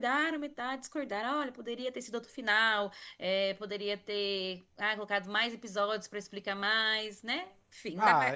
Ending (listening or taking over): taking over